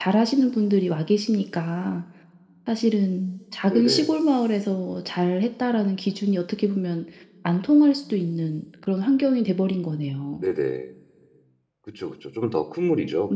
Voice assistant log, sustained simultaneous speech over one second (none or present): none